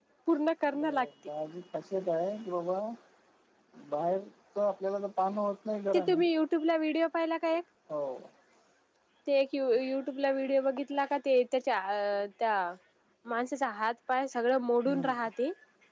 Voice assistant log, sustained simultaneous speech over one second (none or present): none